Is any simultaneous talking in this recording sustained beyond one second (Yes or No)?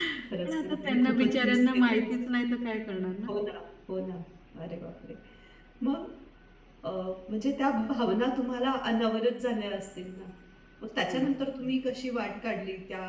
Yes